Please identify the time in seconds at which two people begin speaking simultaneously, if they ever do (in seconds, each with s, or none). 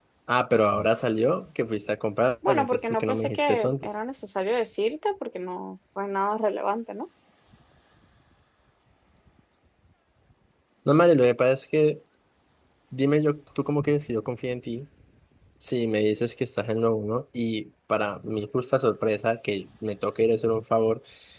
2.4 s